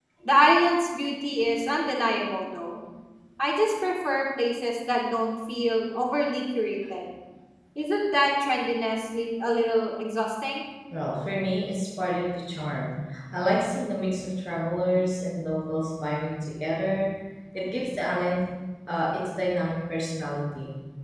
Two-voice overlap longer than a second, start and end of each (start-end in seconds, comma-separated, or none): none